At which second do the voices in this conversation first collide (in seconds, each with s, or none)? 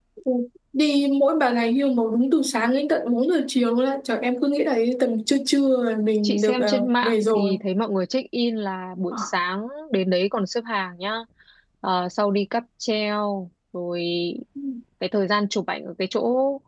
6.2 s